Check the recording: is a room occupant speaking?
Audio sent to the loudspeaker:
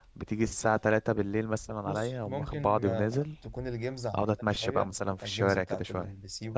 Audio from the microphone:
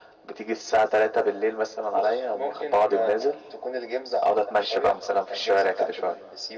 No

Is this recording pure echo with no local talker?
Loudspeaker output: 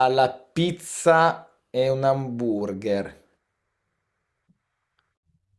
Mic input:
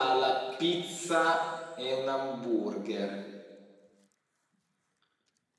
Yes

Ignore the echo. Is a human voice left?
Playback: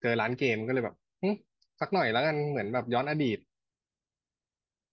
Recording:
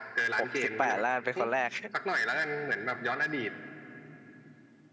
Yes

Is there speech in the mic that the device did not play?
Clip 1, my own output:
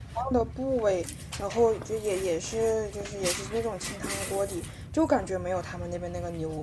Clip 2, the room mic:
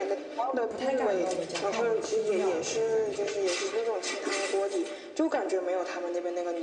Yes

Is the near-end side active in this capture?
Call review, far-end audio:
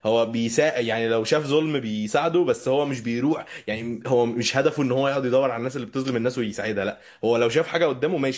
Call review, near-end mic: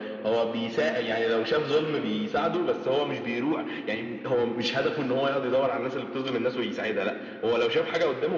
No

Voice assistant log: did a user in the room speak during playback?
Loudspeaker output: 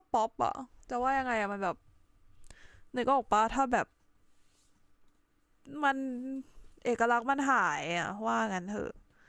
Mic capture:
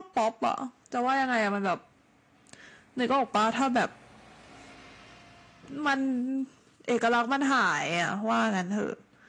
No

